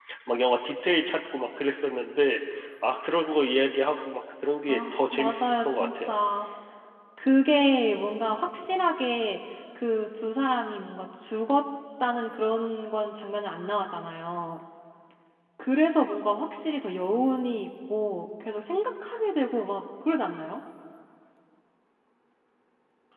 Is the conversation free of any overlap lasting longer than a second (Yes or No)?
No